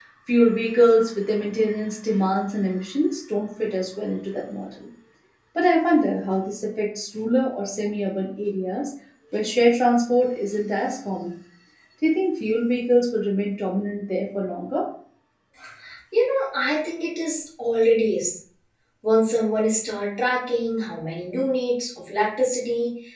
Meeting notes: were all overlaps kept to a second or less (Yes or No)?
Yes